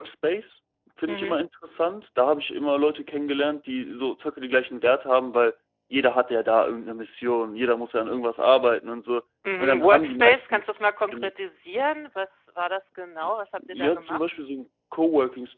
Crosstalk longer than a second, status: present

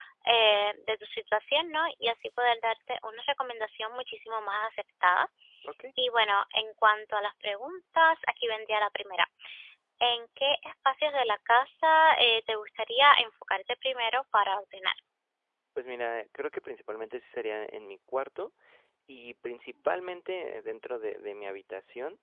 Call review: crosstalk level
none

